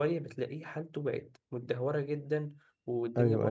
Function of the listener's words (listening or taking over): listening